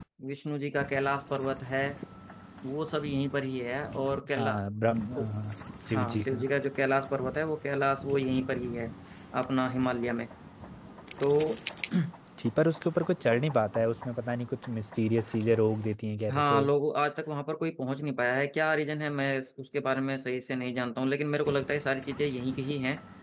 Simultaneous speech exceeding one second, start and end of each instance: none

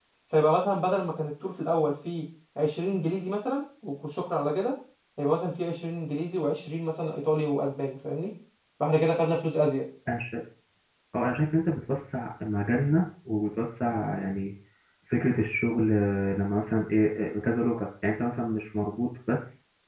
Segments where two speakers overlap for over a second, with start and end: none

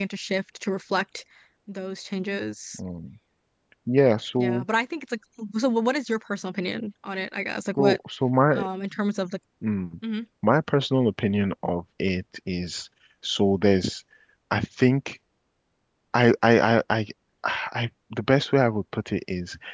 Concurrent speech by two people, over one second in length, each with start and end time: none

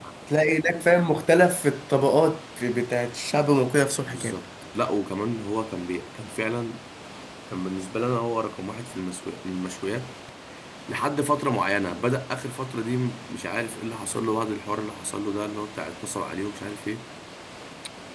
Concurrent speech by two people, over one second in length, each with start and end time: none

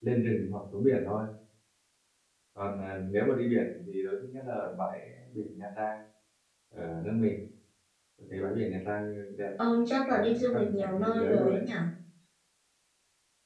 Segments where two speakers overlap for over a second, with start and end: 10.1-11.6

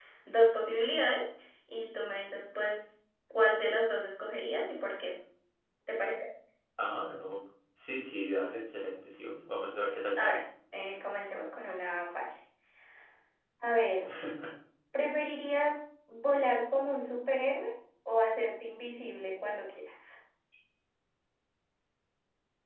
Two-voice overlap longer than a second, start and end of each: none

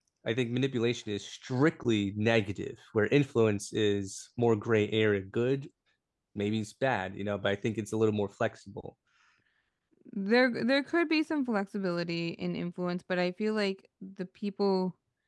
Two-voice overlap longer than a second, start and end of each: none

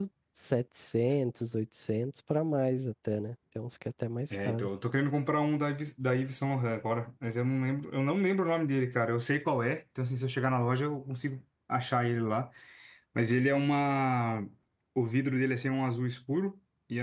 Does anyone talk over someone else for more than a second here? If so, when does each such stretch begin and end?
none

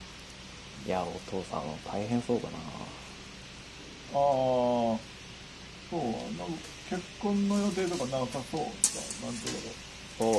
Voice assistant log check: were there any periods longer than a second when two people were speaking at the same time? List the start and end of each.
none

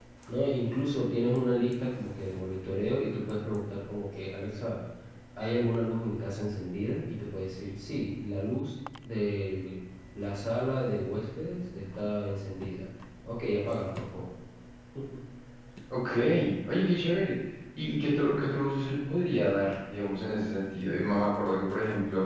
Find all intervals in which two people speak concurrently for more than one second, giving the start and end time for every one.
none

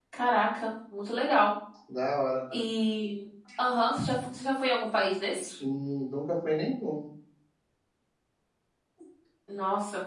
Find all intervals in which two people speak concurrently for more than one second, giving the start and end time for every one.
none

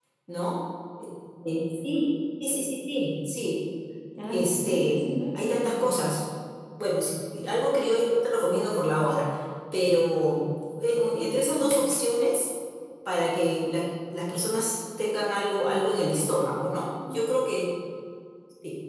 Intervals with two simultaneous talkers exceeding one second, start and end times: 4.2-6.0

